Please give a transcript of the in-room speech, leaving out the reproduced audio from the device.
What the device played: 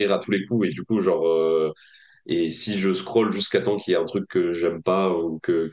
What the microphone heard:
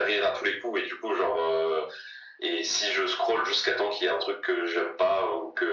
none

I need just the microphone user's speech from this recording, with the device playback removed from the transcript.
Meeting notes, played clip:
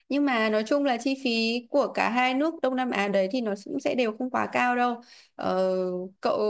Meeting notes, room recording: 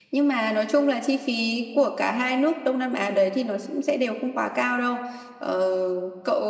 none

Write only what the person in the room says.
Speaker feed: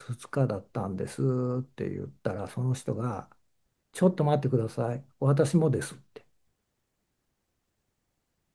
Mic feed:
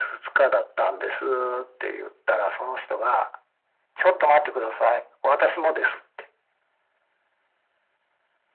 none

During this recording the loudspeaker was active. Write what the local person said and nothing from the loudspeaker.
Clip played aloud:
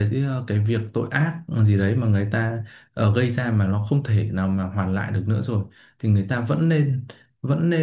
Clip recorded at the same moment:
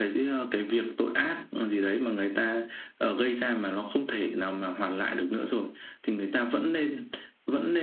none

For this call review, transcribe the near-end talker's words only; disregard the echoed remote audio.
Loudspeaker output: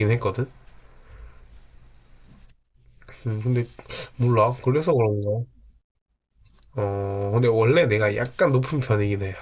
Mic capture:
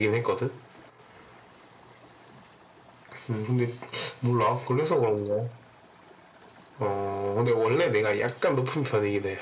none

